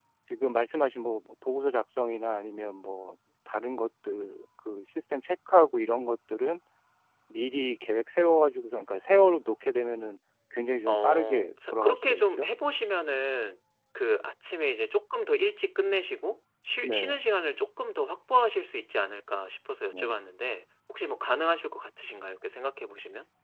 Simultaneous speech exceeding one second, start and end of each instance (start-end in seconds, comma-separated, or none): 10.9-12.5